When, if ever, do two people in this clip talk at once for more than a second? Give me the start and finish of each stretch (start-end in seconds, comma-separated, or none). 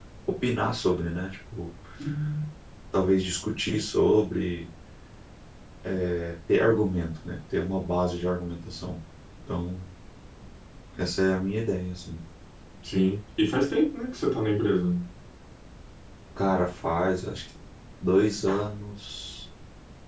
none